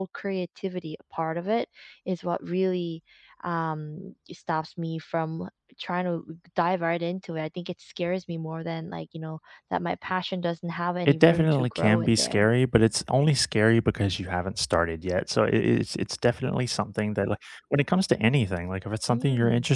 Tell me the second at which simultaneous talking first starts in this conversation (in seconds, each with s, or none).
11.1 s